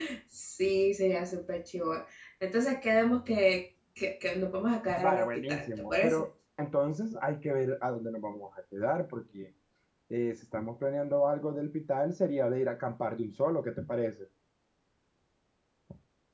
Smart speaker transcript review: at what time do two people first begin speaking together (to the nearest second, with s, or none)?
5 s